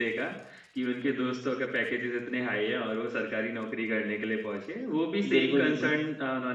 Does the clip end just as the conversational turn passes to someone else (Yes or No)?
No